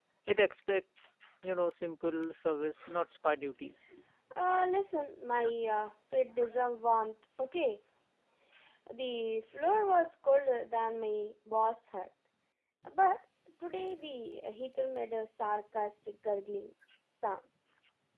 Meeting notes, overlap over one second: none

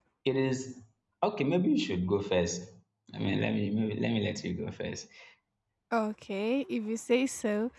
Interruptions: none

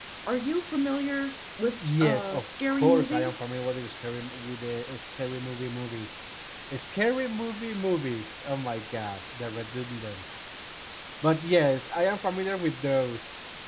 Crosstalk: present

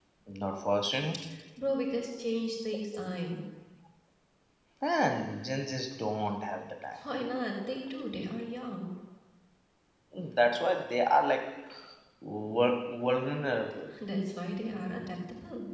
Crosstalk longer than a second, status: none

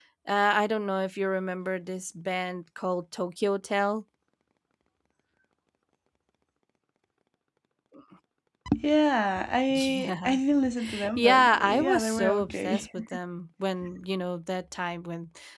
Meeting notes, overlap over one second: present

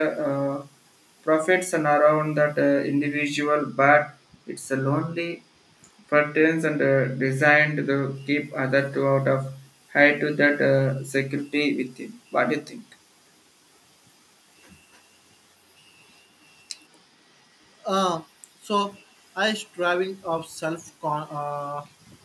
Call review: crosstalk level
none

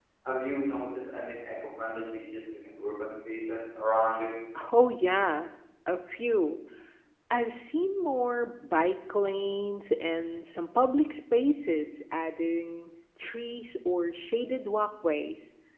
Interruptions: none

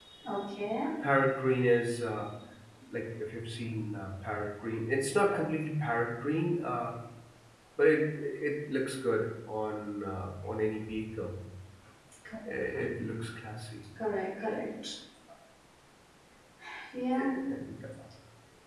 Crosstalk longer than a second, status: none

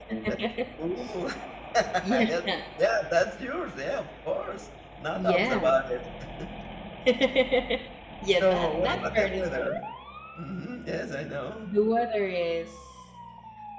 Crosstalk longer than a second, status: present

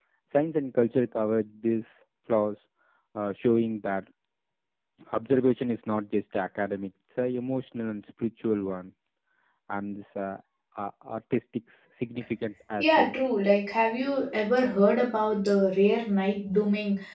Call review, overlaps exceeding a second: none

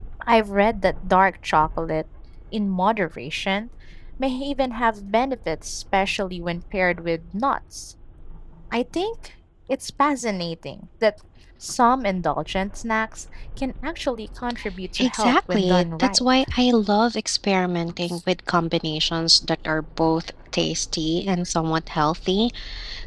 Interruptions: present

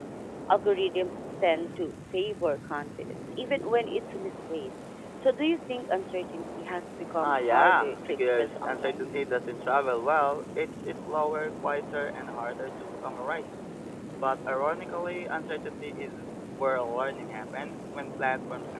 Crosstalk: present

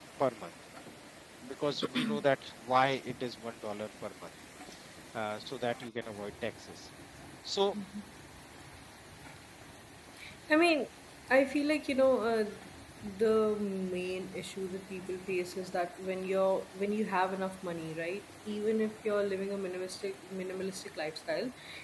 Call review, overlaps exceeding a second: none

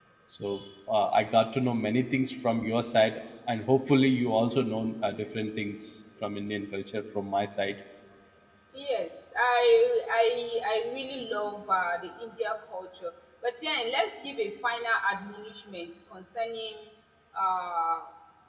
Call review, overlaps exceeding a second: none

